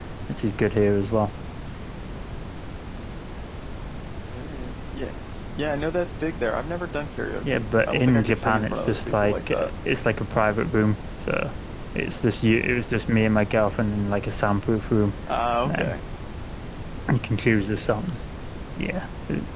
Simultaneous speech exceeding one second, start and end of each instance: 7.5-9.7

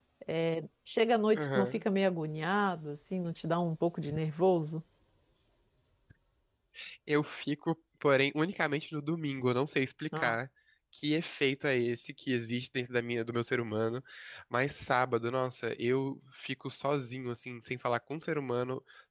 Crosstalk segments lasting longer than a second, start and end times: none

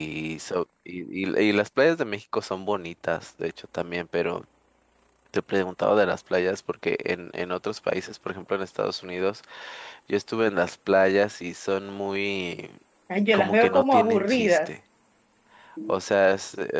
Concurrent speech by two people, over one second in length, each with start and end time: 13.3-14.7

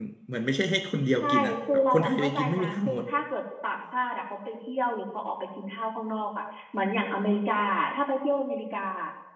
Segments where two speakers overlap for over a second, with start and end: 1.2-3.0

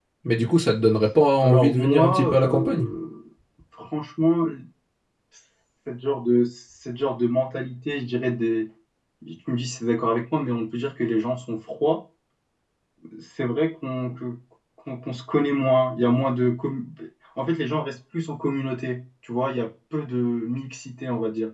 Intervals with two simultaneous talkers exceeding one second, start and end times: 1.4-2.9

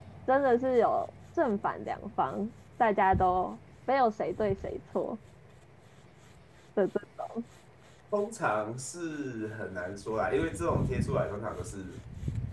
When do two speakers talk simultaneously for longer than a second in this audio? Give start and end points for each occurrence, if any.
none

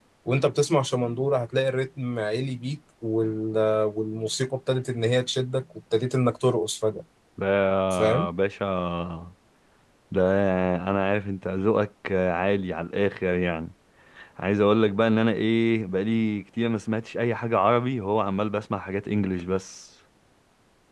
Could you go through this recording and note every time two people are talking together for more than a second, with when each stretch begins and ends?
none

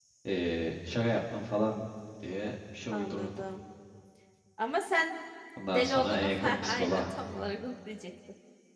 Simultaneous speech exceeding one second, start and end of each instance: 5.6-7.0

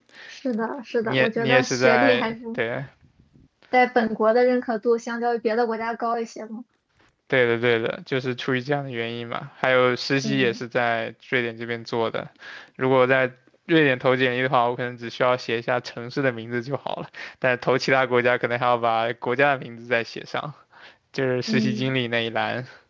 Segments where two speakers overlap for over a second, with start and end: 1.0-2.3

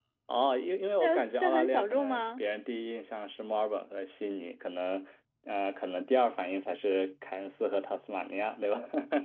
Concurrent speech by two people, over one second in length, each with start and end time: 1.0-2.4

